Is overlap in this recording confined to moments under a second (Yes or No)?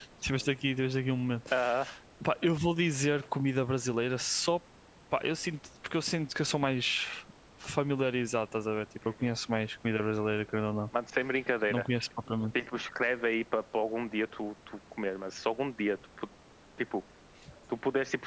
Yes